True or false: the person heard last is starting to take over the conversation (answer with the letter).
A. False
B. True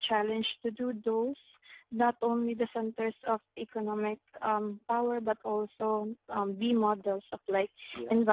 A